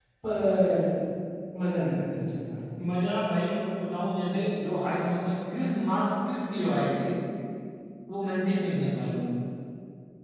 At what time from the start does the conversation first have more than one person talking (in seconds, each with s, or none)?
none